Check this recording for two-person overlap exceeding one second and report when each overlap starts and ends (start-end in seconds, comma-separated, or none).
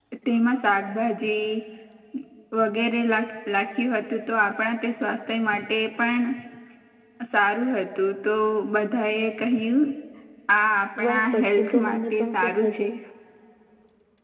11.0-12.9